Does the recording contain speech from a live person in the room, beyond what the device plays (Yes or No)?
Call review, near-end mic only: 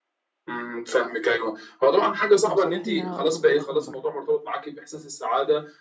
Yes